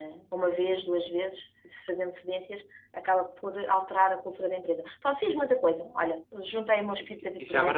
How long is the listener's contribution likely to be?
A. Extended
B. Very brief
A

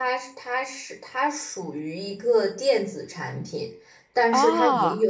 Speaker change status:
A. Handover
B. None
B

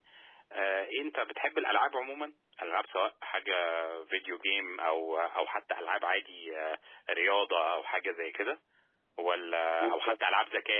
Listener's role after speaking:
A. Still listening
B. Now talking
A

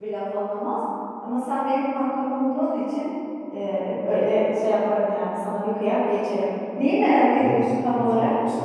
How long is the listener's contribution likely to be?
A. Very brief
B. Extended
B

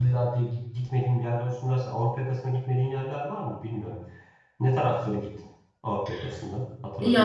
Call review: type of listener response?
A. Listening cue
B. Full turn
B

